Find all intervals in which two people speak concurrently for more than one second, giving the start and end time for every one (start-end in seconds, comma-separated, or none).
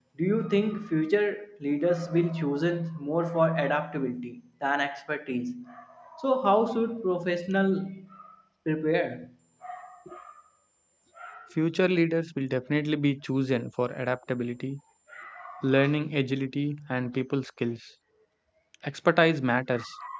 none